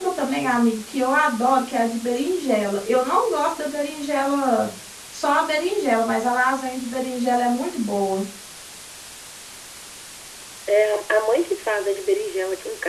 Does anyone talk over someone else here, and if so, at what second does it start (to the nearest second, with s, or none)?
none